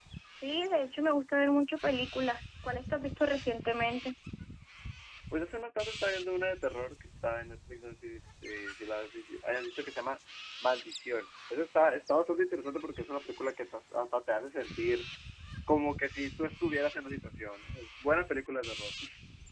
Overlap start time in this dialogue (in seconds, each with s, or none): none